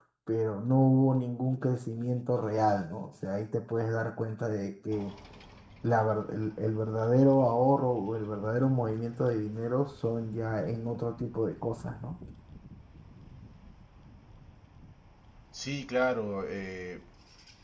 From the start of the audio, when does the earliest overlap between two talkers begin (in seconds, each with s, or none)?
none